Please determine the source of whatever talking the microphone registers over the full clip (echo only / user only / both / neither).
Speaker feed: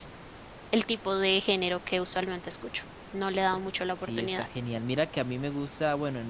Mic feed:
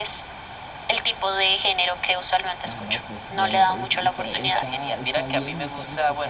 both